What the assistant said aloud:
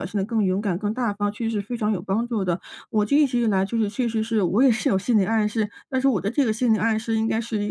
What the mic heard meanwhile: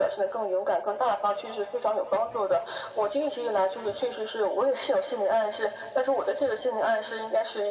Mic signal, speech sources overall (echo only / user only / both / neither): echo only